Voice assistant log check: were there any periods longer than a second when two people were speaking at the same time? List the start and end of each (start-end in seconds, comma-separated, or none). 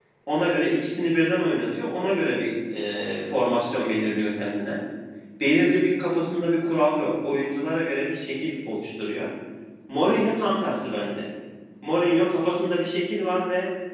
none